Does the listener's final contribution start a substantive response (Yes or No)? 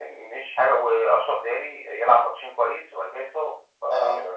No